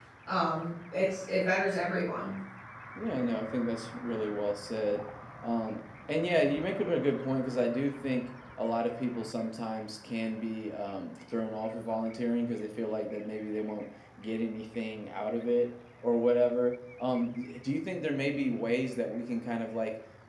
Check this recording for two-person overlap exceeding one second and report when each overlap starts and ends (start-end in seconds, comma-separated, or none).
none